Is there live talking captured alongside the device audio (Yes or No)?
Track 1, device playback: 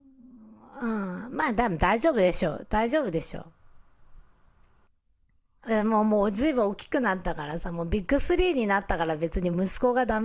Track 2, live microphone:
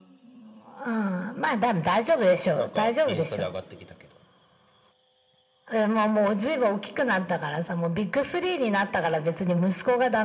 Yes